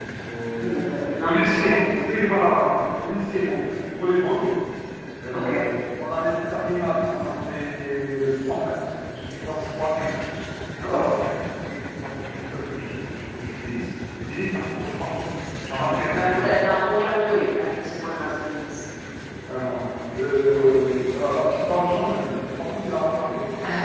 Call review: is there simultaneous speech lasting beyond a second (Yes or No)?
Yes